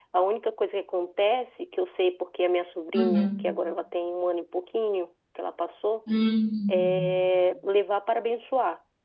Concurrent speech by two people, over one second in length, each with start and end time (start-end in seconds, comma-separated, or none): none